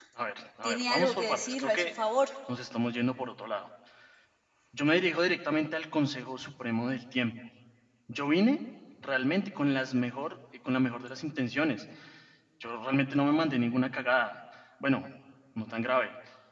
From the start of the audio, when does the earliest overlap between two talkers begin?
1 s

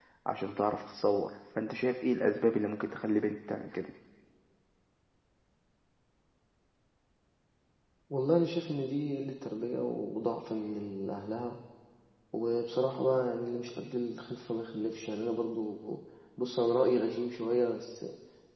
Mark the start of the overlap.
none

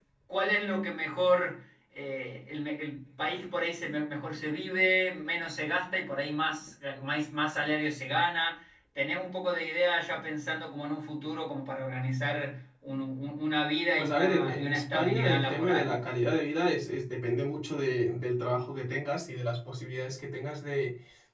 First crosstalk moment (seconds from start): 14 s

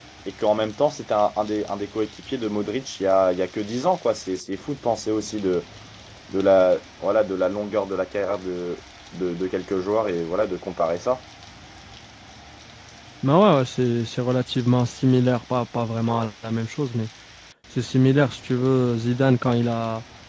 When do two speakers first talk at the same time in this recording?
none

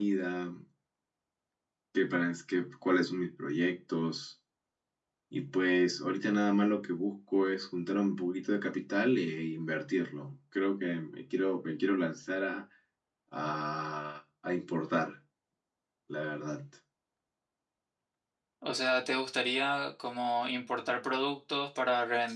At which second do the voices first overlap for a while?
none

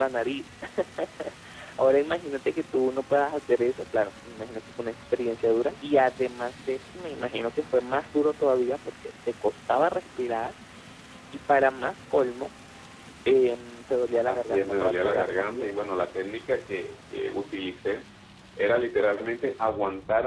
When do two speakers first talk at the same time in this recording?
14 s

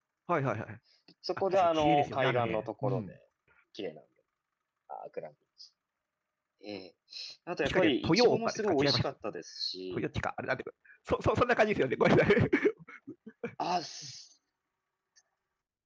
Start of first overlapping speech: 2 s

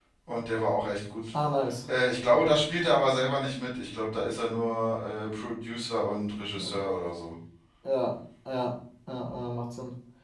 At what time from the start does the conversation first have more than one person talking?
none

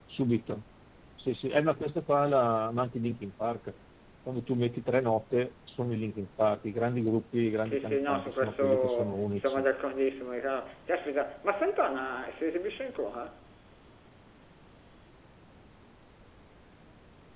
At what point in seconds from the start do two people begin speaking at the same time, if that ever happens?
8 s

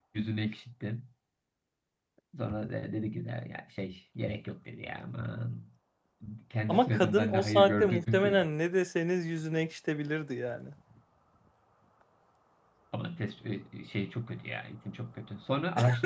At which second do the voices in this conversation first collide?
7 s

